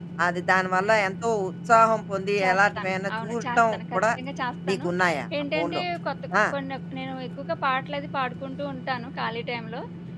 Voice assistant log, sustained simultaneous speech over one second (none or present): present